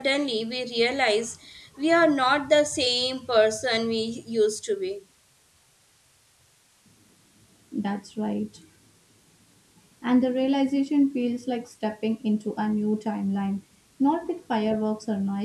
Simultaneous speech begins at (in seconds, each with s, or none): none